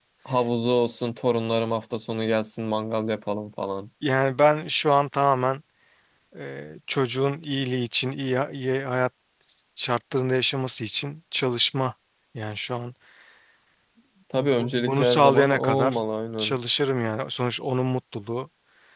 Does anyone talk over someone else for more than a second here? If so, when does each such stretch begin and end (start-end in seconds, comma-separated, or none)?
14.3-16.0